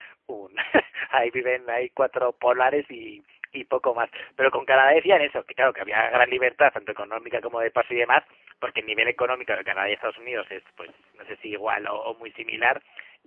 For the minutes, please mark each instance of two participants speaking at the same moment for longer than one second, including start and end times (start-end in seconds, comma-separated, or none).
none